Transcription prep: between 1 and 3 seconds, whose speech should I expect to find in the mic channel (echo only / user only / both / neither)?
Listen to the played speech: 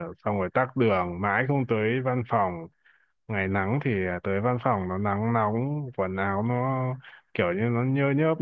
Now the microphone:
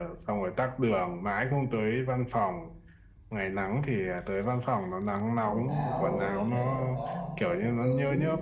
echo only